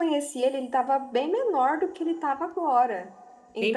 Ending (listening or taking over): listening